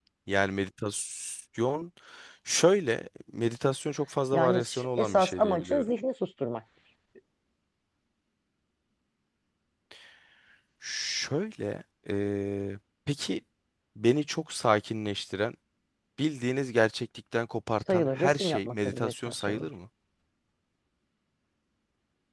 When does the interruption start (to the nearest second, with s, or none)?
4 s